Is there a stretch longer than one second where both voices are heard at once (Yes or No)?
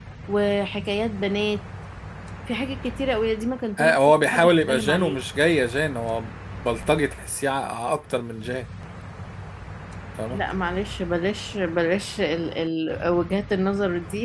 Yes